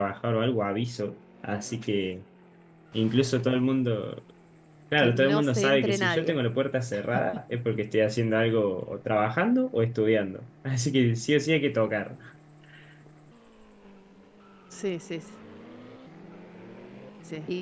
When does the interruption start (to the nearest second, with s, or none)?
5 s